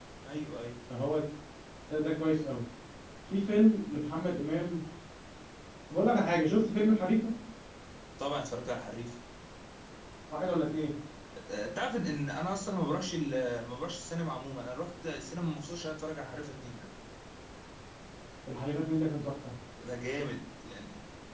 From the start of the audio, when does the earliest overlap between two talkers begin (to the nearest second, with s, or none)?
none